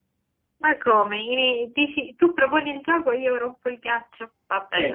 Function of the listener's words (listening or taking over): taking over